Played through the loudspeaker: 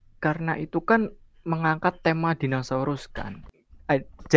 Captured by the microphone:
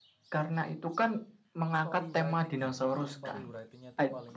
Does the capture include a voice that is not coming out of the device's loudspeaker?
Yes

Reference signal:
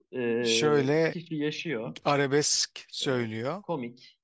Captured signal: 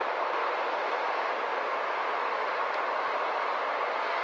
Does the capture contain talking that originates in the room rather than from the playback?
No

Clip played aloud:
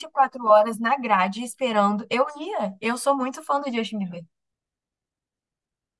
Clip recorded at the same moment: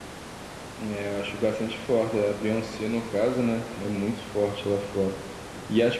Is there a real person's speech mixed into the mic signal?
Yes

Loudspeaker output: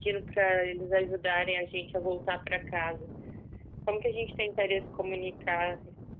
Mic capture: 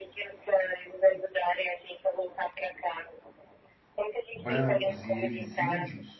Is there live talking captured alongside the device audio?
Yes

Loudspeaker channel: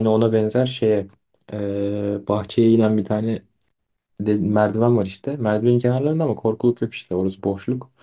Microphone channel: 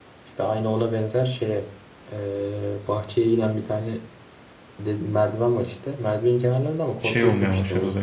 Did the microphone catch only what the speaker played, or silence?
No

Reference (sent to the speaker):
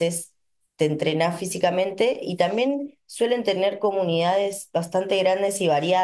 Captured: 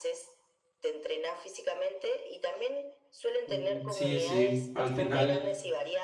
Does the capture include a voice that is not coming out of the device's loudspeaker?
Yes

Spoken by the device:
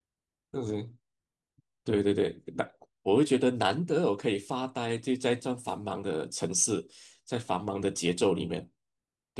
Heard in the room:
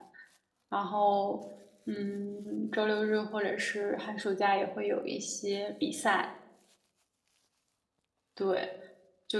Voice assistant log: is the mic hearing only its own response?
No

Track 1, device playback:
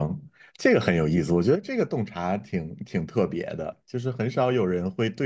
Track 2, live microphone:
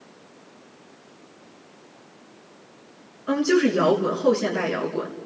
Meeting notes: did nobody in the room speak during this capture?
No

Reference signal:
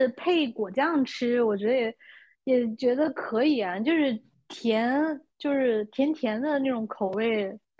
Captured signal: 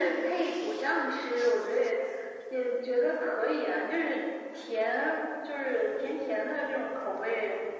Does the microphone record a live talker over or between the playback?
No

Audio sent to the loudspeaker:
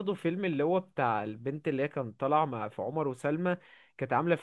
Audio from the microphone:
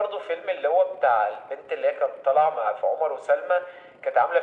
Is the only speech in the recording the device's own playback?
Yes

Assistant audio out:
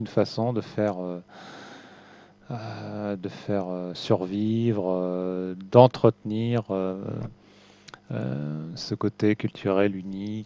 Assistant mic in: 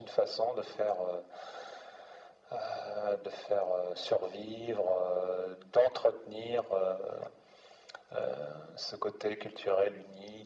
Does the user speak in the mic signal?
No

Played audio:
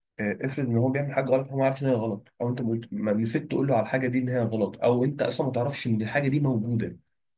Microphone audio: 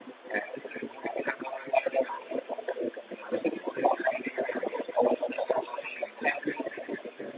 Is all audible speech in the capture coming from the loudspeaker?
No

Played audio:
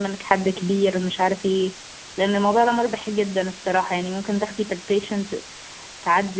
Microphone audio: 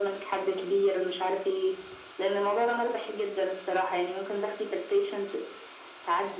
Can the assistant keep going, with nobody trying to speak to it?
Yes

